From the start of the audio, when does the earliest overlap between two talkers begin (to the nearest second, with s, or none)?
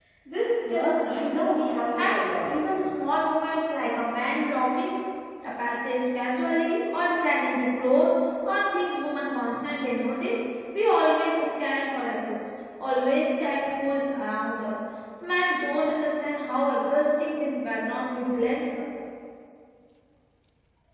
1 s